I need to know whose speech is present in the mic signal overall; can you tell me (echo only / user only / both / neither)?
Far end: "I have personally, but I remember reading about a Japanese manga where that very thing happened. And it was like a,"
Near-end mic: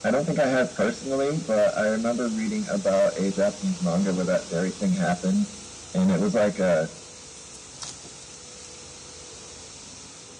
echo only